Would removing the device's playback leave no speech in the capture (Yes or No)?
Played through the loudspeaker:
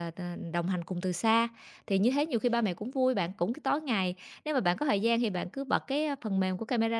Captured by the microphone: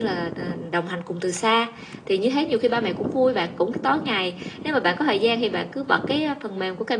Yes